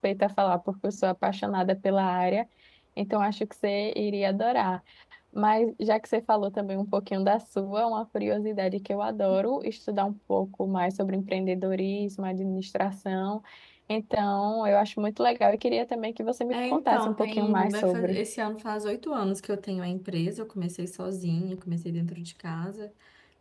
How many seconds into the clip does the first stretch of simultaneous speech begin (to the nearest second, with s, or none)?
17 s